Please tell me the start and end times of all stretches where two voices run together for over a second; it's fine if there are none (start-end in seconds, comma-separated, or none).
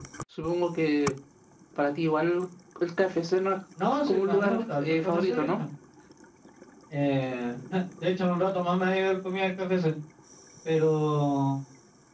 4.1-5.6